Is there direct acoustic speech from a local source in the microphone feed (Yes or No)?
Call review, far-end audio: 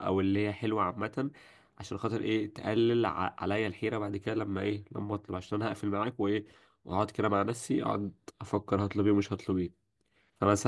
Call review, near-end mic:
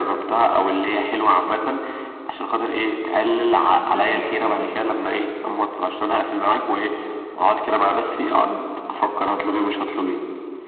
Yes